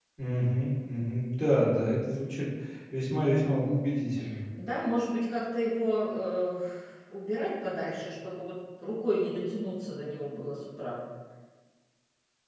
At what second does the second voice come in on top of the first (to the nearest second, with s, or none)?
none